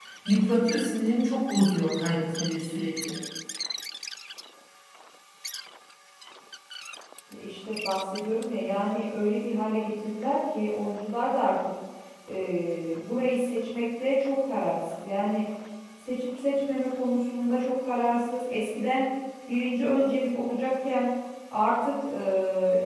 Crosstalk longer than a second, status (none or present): none